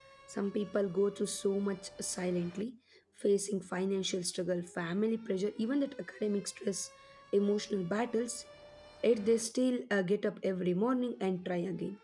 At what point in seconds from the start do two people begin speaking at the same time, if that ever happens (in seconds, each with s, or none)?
none